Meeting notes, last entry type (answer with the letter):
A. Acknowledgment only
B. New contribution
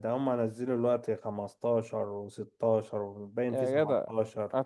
B